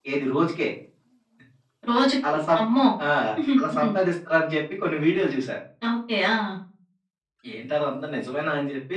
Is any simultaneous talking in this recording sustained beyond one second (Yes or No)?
No